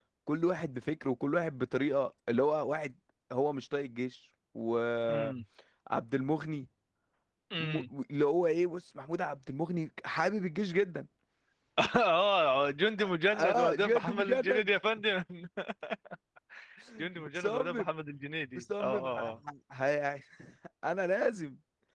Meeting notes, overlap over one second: present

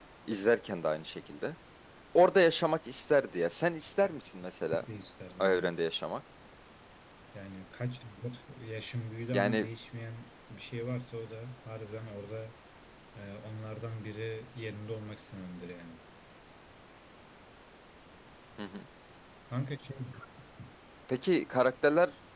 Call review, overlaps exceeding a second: none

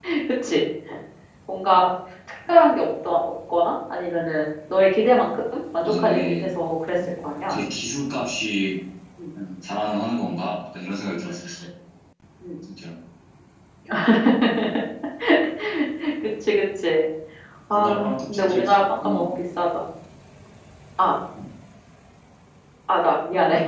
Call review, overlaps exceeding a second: present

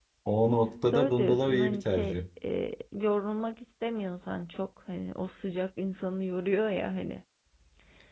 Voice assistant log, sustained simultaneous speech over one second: present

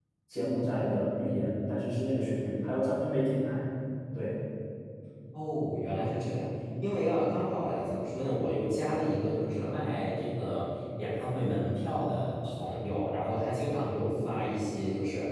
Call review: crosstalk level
none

